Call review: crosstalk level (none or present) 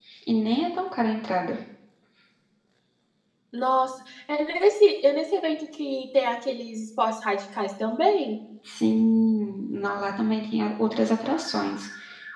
none